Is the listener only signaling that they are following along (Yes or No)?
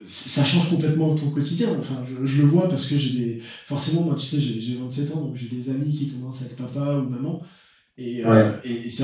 Yes